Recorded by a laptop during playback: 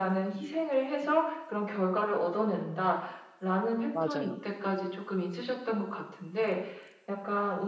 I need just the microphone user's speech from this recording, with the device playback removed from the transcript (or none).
맞아요.